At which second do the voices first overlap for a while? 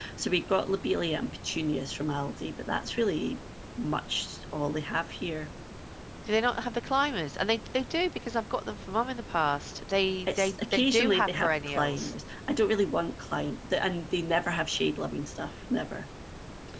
10.3 s

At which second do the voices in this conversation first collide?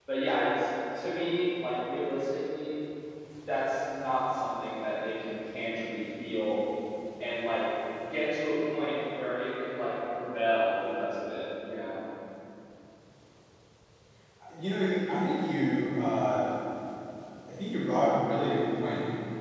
none

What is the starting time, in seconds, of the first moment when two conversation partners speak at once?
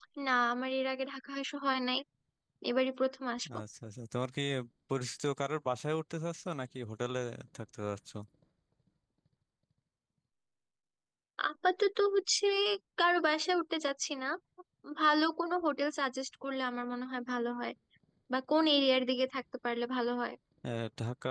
none

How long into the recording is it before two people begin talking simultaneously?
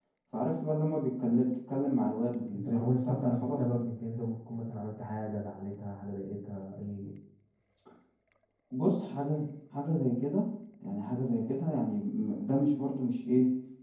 2.5 s

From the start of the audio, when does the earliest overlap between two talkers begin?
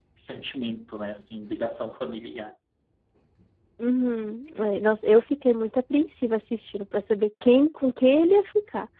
none

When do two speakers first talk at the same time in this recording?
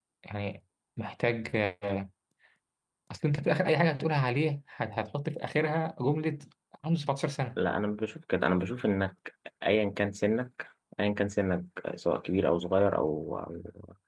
none

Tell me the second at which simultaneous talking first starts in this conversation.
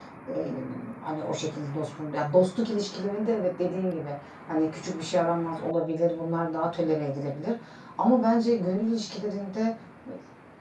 none

